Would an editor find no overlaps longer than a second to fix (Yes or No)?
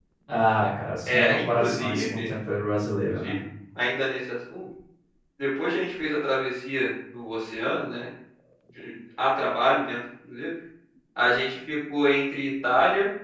No